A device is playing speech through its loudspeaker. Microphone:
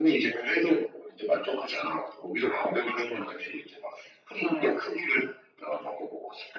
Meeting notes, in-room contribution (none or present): none